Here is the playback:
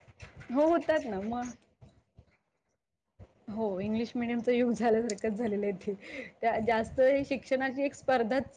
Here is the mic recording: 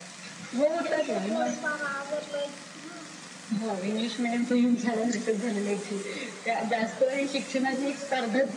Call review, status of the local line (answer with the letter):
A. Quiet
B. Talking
B